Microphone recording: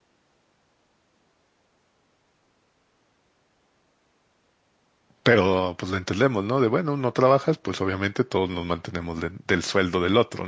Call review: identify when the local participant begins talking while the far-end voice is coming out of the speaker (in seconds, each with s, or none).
5.2 s